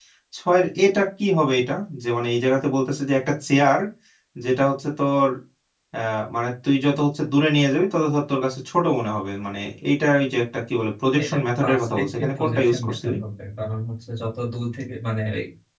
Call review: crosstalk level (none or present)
present